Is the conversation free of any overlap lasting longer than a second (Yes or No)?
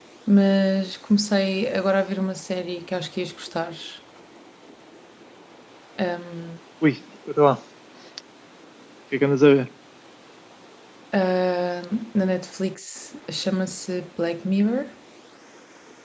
Yes